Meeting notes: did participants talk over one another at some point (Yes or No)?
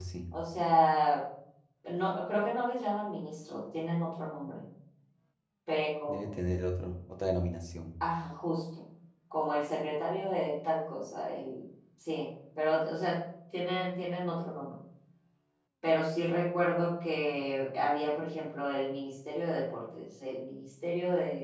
No